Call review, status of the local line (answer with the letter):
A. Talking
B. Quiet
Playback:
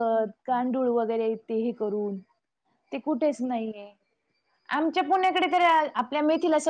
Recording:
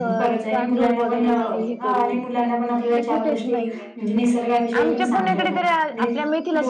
A